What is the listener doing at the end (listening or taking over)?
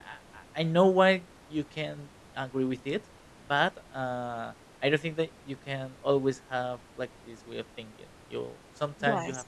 listening